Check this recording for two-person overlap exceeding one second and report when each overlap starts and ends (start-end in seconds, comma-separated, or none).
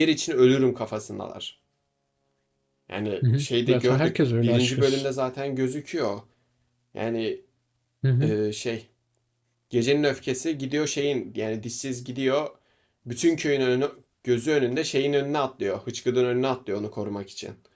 3.4-5.0